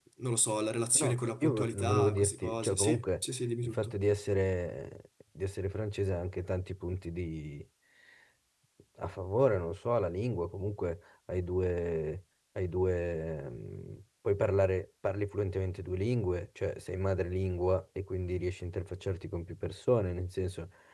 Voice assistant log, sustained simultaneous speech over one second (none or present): present